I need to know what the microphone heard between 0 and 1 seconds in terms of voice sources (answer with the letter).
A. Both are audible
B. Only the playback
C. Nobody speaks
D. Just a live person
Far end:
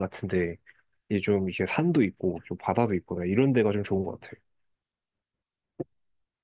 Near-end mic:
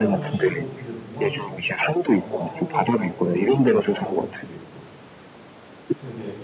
A